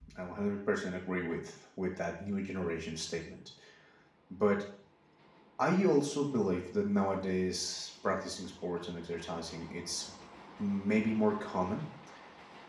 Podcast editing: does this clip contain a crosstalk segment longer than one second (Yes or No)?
No